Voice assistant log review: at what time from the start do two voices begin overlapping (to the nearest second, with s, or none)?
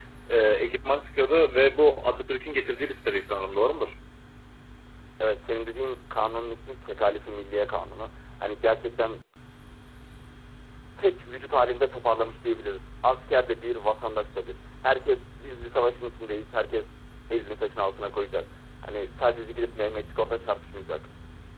none